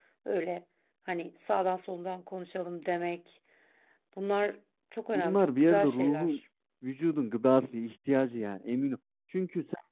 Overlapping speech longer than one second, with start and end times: 5.1-6.4

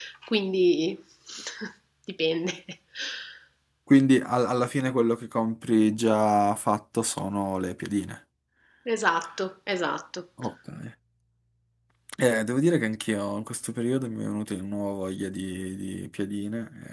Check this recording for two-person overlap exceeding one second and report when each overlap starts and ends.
none

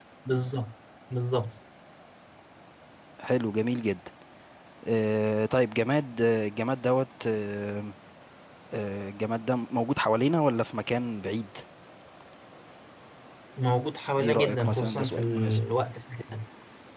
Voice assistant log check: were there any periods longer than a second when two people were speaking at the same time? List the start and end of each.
14.2-15.6

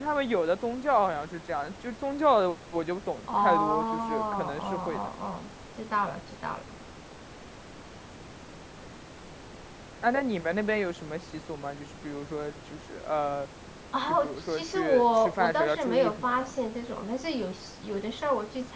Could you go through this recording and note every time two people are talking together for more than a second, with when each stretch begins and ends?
3.3-5.0, 14.2-16.5

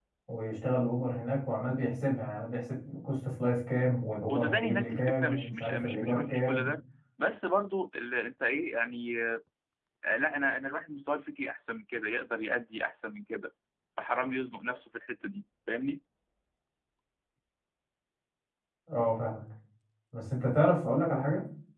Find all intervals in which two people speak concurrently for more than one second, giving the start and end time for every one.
4.3-6.7

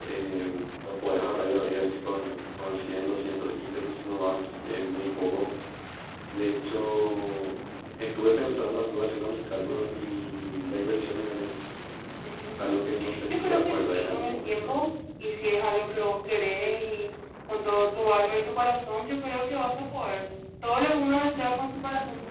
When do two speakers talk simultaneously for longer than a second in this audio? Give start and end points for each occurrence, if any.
13.3-14.7

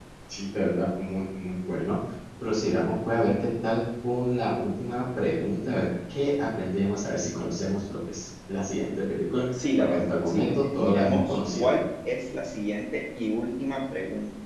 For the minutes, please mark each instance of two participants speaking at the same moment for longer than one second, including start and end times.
9.8-11.8

